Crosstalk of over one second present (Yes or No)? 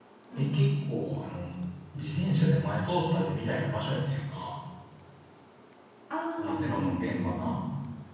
Yes